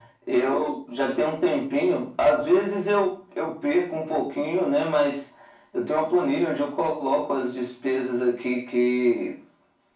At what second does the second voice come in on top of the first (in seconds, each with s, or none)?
none